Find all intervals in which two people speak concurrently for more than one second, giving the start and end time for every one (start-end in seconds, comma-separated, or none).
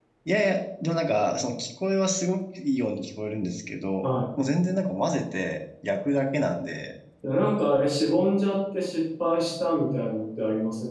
none